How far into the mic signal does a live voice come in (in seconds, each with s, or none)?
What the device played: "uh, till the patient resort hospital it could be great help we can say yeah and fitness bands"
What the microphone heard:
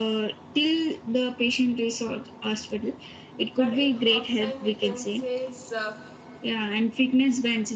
3.5 s